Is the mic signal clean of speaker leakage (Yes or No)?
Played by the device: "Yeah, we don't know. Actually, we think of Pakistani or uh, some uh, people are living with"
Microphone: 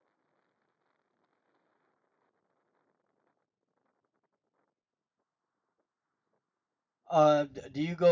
Yes